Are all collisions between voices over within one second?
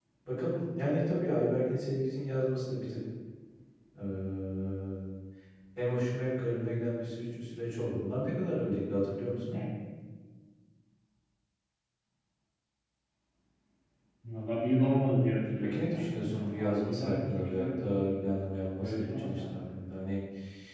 No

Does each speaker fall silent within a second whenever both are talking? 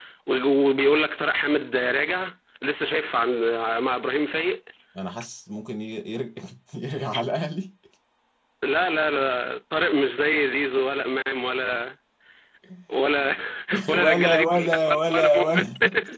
No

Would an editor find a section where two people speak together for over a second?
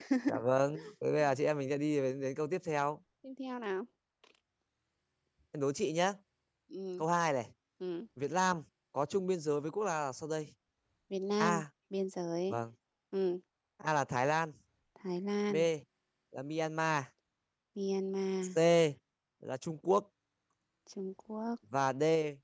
No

